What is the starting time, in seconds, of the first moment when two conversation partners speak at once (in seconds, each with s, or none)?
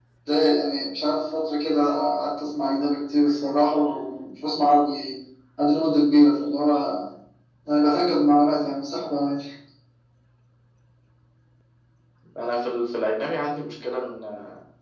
none